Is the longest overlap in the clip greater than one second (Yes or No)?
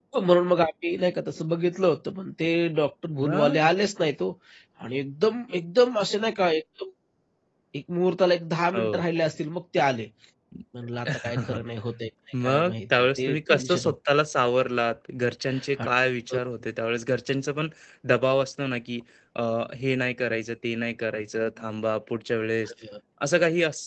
Yes